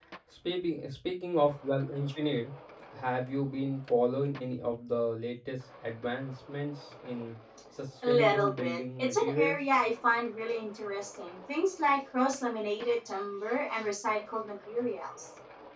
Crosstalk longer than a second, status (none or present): present